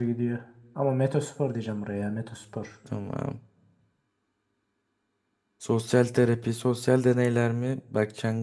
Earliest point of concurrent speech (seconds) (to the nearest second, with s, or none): none